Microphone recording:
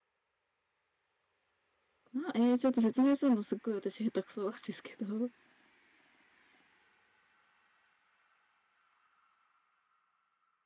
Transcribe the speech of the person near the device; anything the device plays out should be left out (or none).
な、えーちょっと説明するのすっごい私下手くそなんですけど。